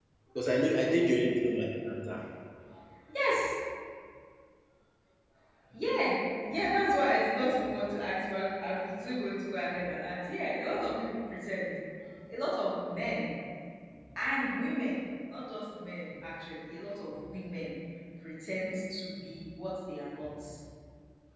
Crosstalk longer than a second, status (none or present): none